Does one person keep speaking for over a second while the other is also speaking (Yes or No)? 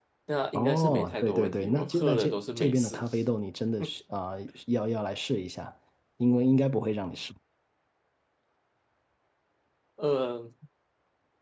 Yes